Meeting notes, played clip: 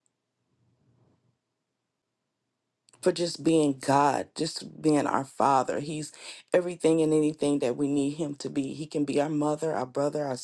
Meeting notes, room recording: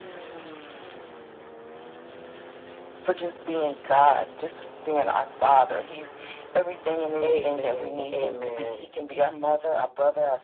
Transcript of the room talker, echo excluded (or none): Amen. Amen.